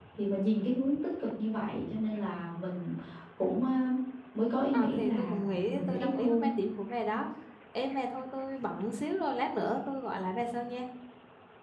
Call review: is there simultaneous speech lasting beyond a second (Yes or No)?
Yes